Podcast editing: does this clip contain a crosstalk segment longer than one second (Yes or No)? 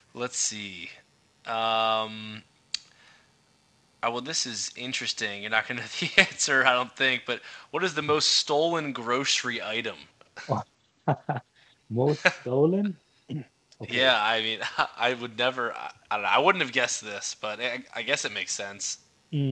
No